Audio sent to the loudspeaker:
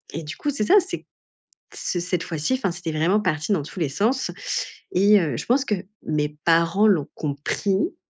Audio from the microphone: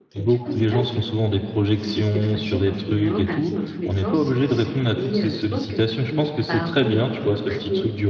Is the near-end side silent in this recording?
No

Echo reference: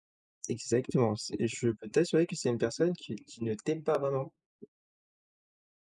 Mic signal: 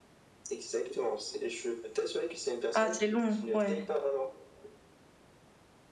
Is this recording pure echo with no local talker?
No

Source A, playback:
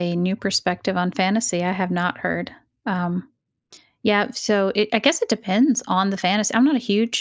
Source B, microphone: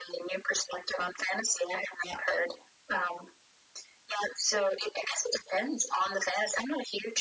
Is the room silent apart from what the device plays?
Yes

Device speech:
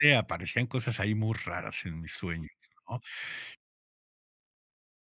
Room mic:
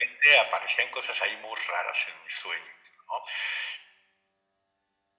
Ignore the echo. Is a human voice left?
No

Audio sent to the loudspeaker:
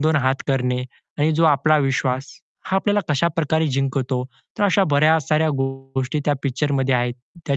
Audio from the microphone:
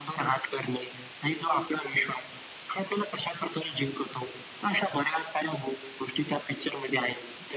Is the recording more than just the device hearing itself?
No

